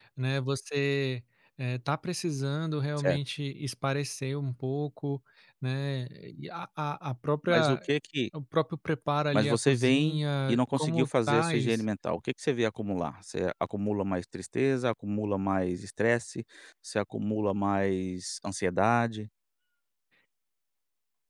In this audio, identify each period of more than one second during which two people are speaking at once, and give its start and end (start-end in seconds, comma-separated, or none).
9.3-11.8